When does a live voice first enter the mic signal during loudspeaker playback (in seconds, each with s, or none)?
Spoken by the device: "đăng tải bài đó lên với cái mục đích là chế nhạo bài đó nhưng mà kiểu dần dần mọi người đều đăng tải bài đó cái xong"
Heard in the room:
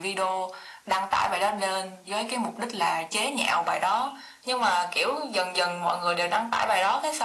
none